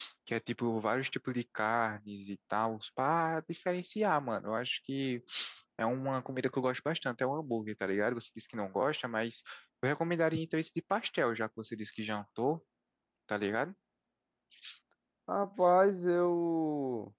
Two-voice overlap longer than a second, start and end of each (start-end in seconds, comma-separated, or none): none